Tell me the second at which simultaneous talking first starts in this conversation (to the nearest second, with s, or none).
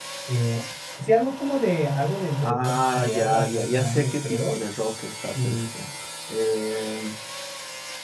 2 s